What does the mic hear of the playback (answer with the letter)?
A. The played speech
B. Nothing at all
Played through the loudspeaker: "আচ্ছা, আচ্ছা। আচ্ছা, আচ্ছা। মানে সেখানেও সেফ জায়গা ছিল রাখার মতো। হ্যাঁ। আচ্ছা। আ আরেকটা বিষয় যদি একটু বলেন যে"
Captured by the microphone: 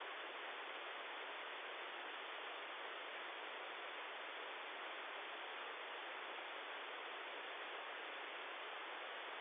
B